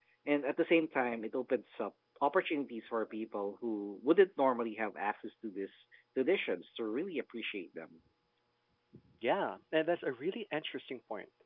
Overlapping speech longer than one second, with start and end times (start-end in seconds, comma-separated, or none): none